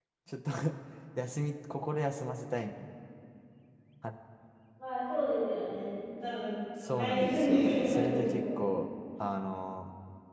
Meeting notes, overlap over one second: present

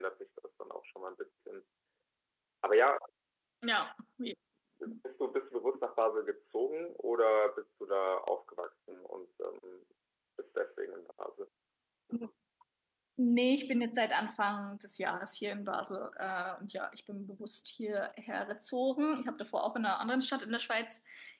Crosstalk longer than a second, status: none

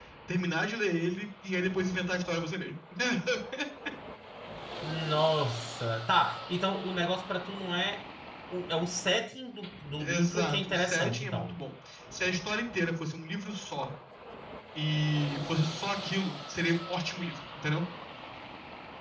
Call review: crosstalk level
present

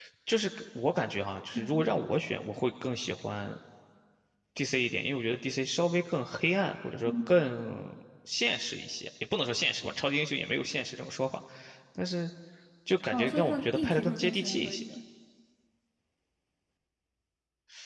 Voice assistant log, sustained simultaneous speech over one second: present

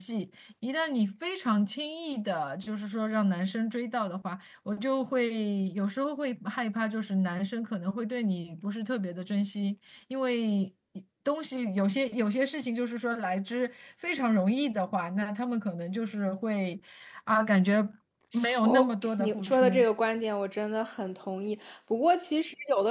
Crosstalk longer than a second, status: present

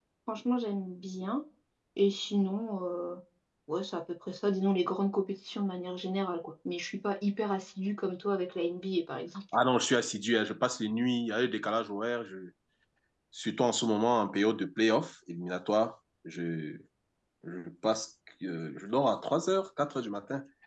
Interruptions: none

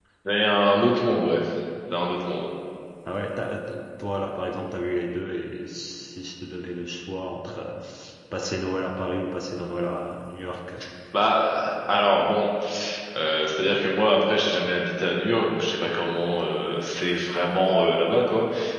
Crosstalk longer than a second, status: none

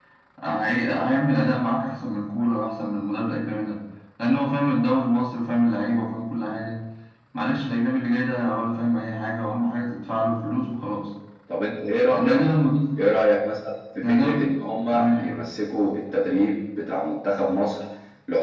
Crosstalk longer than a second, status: none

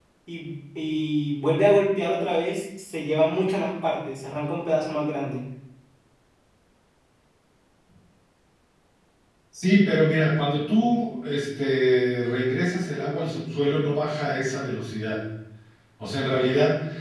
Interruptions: none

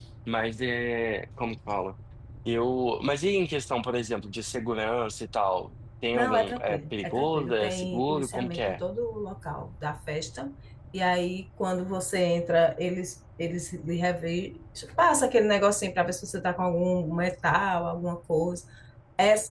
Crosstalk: present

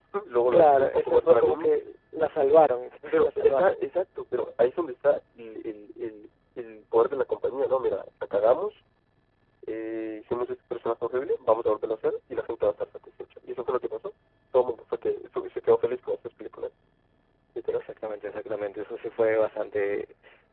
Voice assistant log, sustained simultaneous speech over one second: present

